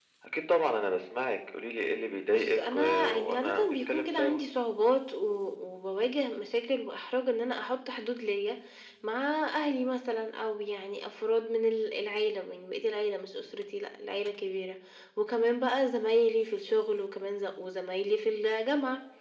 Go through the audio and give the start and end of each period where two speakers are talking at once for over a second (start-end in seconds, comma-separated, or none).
2.3-4.4